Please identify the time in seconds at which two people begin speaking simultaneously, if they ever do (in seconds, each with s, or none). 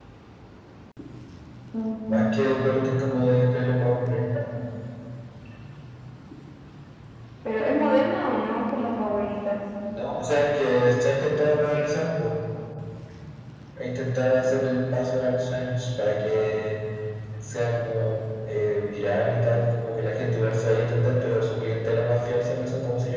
none